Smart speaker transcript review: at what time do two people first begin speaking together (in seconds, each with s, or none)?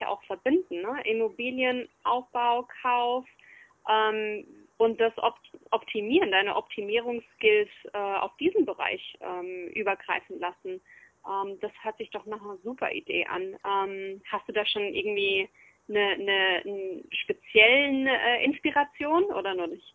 none